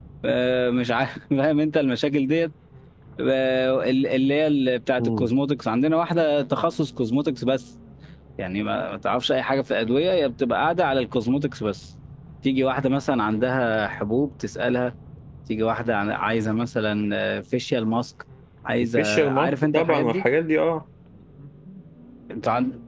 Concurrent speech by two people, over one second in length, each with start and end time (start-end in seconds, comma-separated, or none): 19.0-20.2